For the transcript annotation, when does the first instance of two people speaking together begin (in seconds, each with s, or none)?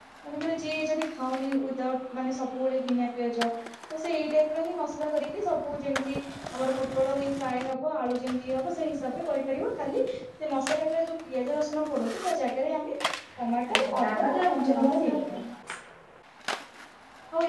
13.7 s